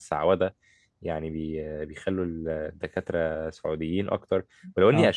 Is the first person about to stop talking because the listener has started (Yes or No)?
No